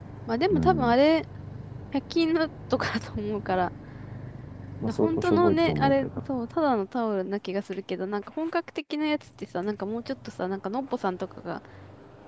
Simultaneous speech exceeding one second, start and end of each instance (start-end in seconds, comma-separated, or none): 4.8-6.1